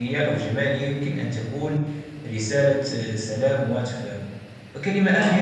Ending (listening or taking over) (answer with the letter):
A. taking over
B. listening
B